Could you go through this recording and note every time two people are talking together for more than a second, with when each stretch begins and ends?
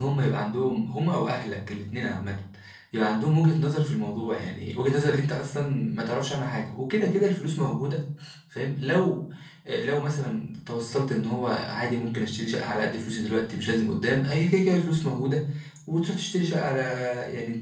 none

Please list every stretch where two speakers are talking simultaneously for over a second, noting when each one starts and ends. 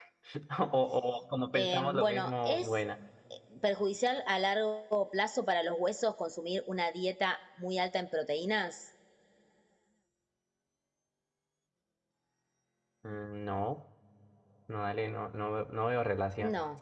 1.5-2.8

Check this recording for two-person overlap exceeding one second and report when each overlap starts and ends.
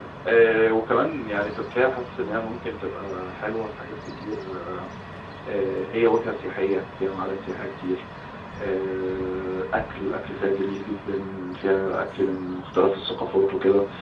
none

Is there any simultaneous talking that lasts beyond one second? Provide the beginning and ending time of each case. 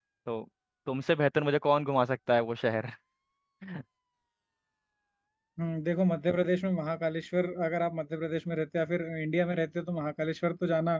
none

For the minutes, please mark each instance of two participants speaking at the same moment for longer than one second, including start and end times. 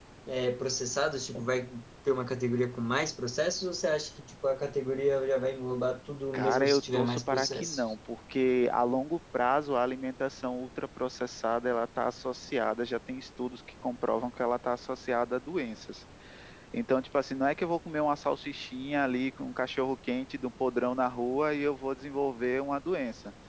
6.3-7.8

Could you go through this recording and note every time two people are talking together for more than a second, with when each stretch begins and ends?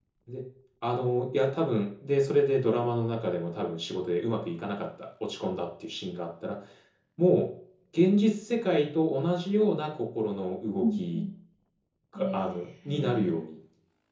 12.2-13.4

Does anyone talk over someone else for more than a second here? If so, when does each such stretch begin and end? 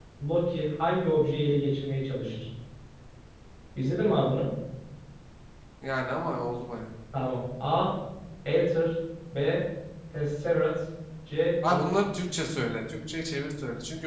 none

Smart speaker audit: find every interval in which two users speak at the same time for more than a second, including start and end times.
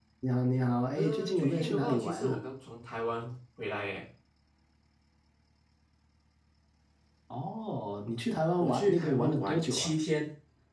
1.0-2.4, 8.6-9.9

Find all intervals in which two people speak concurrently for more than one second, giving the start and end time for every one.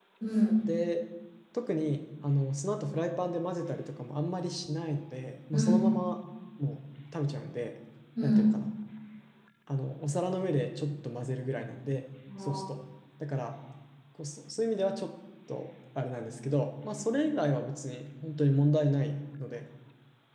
none

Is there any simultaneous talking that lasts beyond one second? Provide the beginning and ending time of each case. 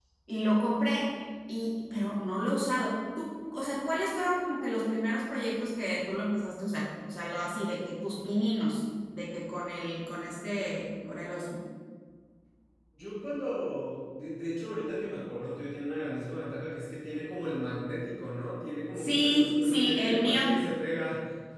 19.0-20.4

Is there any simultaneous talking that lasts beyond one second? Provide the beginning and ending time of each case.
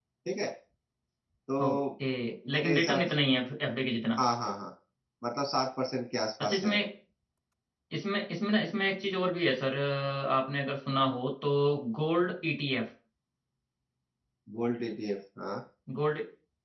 none

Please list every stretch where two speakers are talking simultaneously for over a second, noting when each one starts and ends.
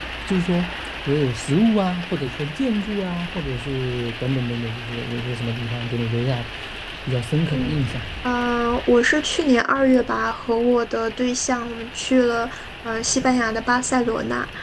none

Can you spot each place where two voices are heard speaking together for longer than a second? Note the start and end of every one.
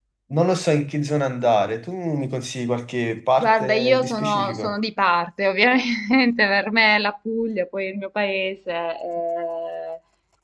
3.4-4.7

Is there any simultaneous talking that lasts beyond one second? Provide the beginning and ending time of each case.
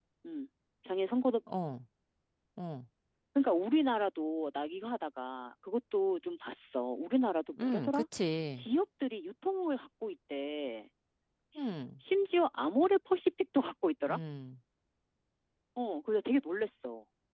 none

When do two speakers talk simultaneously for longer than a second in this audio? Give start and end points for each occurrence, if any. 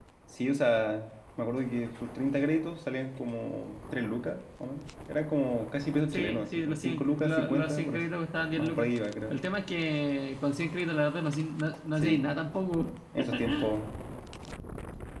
6.1-8.0

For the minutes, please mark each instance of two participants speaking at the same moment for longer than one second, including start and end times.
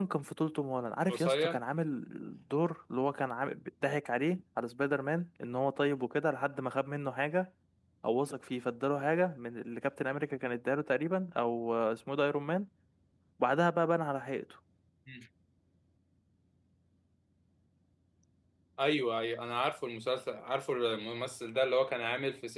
none

